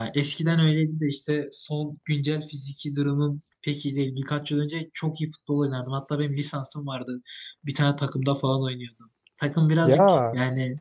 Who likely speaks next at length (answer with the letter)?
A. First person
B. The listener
A